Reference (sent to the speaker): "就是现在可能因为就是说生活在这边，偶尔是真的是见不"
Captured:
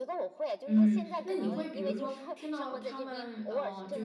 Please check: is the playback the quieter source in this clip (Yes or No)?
Yes